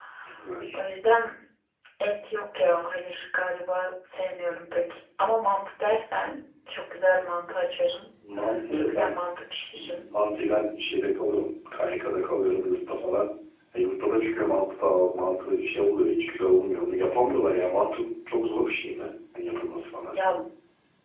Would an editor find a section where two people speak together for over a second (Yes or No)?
No